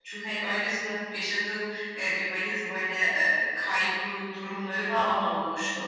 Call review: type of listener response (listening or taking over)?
listening